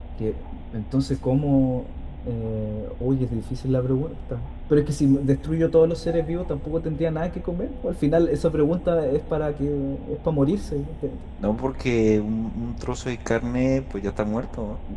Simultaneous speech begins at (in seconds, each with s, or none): none